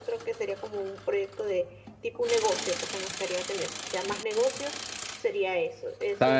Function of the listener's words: taking over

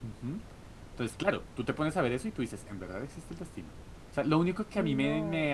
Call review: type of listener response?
listening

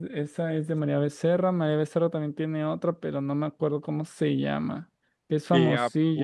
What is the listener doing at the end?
taking over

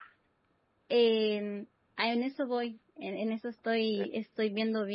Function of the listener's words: listening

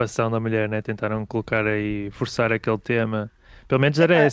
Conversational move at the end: listening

